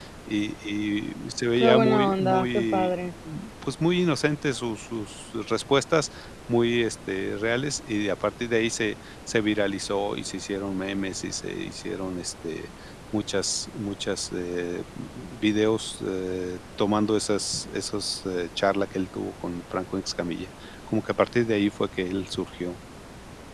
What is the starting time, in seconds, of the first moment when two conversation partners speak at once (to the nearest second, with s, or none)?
2 s